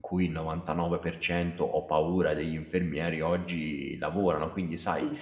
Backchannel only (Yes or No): Yes